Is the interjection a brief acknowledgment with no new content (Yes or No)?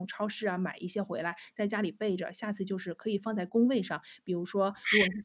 Yes